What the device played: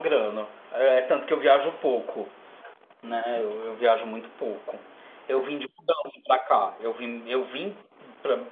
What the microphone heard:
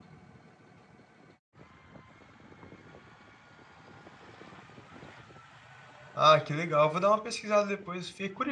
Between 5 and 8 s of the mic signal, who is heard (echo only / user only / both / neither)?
user only